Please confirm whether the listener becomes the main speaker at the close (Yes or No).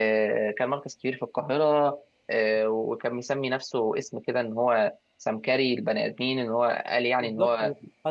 Yes